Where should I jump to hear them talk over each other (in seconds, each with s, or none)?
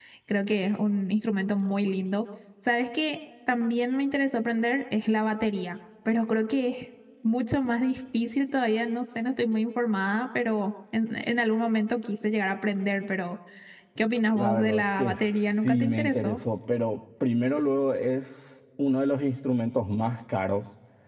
14.3 s